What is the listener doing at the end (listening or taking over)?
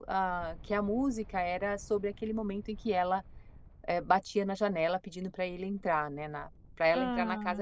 listening